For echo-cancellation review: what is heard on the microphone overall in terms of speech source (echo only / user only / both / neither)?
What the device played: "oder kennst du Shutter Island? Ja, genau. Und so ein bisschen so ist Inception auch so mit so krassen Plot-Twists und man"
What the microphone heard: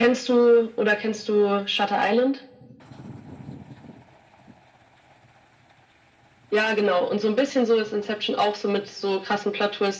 echo only